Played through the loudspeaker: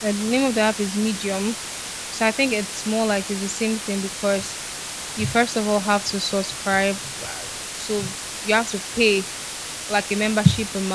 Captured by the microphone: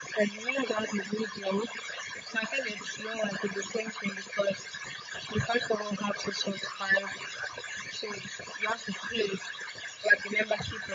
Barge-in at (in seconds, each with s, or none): none